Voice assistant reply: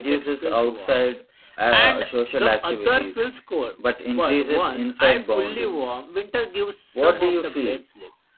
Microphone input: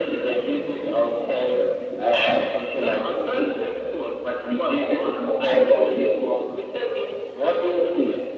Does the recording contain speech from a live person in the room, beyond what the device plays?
No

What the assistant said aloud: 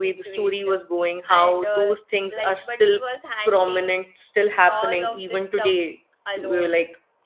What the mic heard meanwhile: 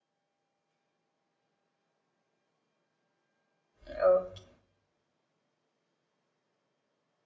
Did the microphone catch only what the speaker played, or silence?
No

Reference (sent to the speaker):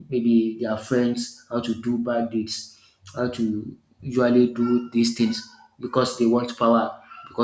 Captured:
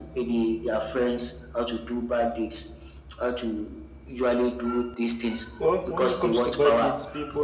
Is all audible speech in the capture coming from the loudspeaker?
No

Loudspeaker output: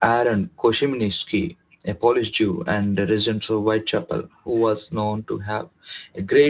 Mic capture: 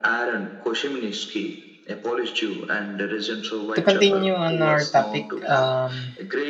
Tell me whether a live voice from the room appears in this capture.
Yes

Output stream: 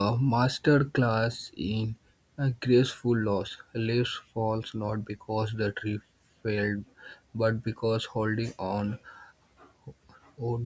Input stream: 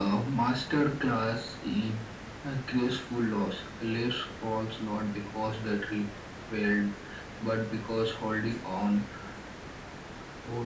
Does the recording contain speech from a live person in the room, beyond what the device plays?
No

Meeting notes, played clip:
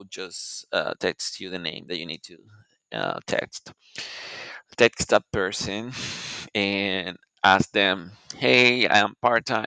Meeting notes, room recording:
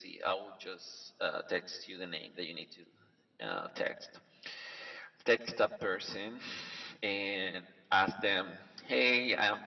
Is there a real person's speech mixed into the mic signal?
No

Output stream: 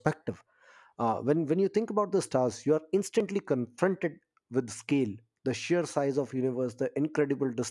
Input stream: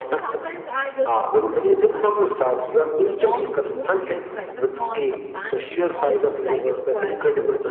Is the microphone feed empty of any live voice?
No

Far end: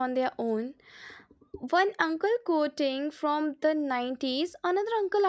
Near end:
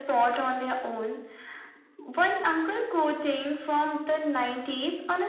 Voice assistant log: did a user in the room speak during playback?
No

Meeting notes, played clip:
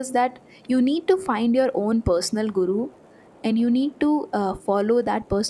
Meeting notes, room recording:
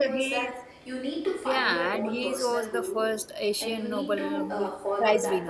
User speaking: Yes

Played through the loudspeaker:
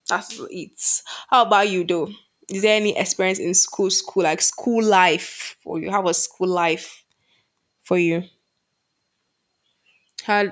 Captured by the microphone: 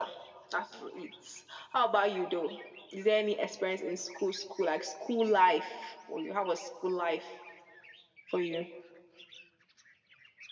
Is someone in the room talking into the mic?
No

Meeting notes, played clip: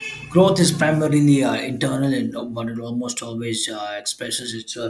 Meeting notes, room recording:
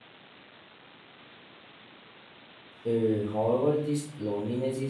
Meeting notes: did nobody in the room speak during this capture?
No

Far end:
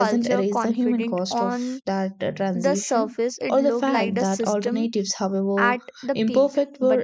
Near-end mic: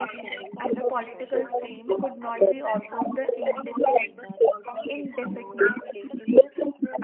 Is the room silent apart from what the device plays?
No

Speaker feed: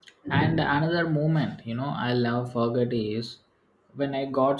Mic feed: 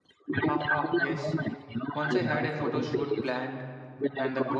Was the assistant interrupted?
Yes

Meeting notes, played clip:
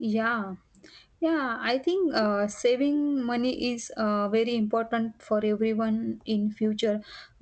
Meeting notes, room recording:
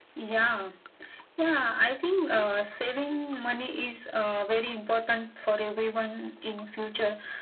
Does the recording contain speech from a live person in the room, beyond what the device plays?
No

